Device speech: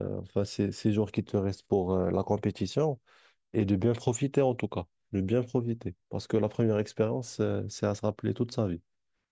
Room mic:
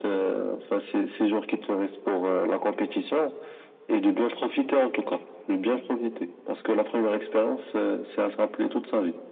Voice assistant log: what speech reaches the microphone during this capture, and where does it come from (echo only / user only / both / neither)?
echo only